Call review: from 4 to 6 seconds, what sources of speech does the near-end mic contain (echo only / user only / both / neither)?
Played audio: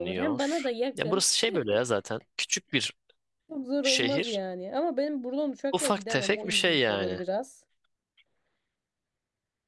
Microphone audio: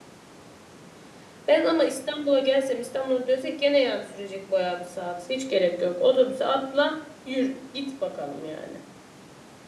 user only